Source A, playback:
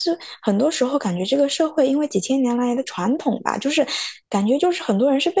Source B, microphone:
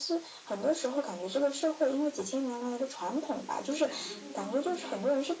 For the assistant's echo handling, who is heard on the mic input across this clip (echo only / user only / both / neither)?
both